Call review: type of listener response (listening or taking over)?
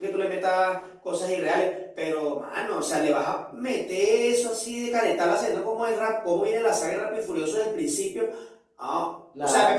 listening